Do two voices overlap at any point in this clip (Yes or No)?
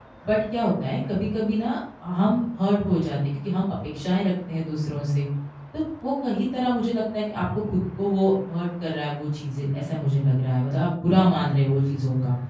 No